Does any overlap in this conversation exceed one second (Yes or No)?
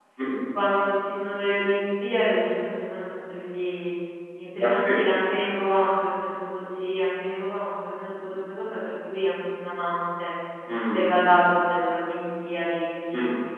No